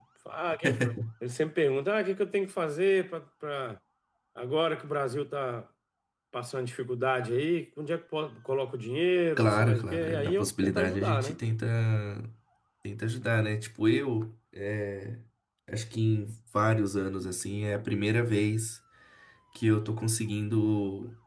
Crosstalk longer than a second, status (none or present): present